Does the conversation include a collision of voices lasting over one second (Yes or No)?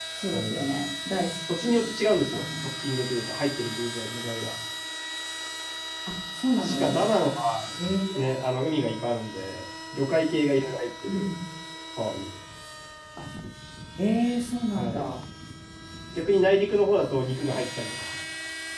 No